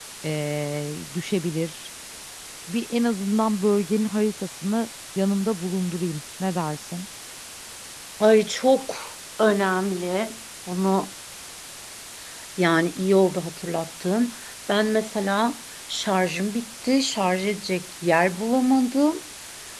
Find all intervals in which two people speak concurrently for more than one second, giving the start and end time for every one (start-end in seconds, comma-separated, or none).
none